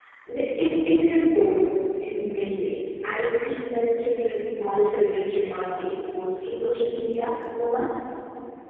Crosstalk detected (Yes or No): No